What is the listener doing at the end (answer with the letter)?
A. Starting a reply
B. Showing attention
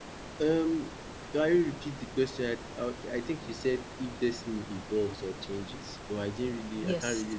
A